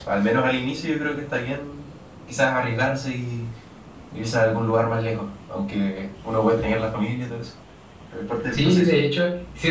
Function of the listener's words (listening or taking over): taking over